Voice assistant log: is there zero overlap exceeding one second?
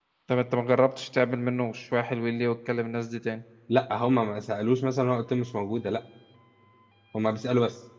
Yes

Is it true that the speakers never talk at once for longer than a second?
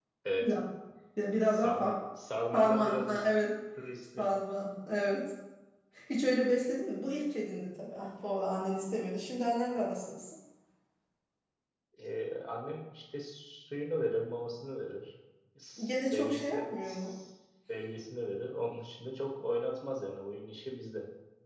No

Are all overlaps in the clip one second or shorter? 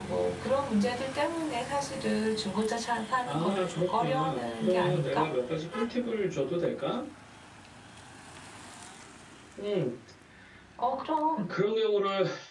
No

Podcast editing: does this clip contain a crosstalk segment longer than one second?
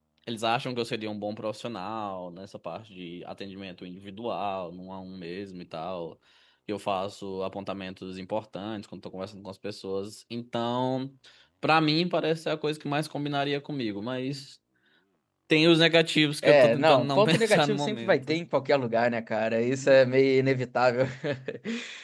Yes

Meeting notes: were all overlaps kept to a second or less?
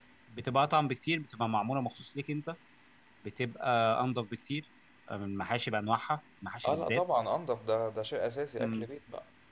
Yes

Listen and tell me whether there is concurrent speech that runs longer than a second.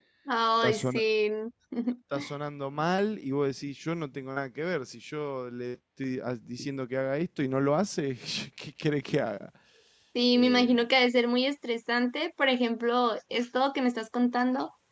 No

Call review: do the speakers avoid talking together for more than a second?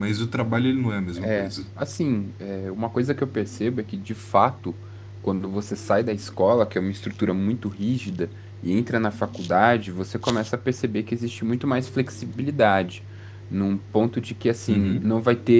Yes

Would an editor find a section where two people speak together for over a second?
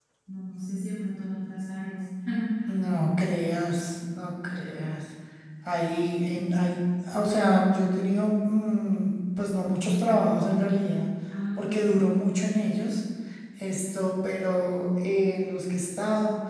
No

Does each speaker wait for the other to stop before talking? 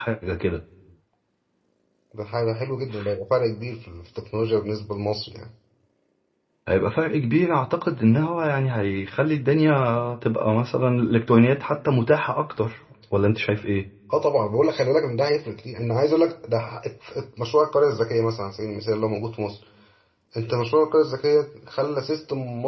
Yes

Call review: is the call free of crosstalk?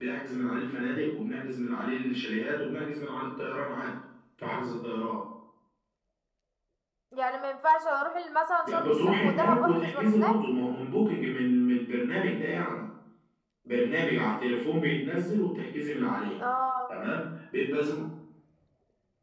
No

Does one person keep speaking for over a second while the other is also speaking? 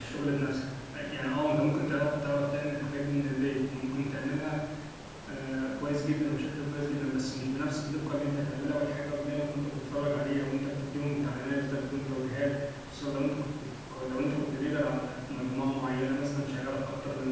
No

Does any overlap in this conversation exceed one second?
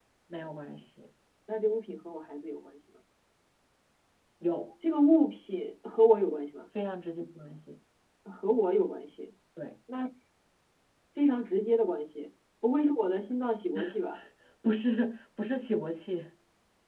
No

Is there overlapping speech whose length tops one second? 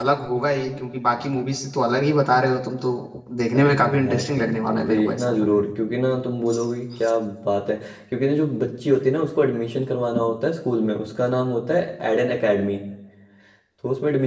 Yes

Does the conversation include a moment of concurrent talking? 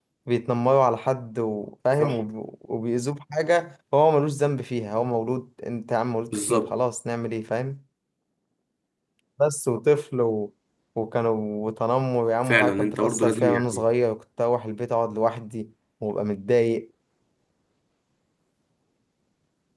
Yes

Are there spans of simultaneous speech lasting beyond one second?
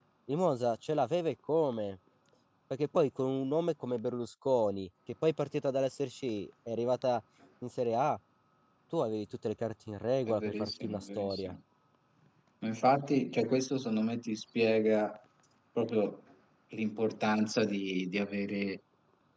Yes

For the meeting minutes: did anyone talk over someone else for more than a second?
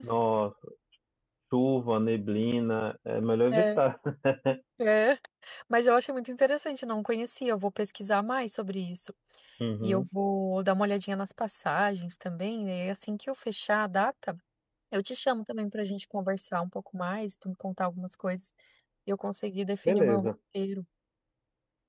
No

